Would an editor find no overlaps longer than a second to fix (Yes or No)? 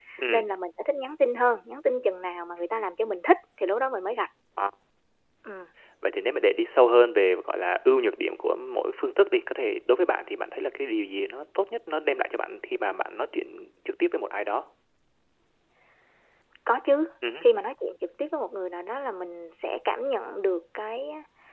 Yes